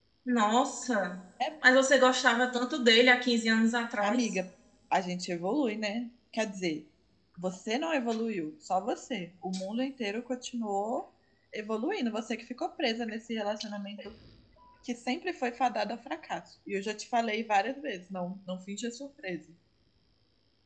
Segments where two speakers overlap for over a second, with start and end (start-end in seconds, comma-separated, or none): none